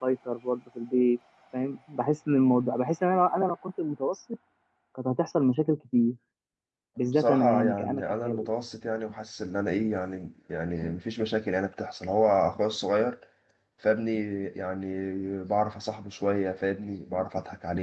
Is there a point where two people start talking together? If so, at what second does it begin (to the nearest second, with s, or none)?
7 s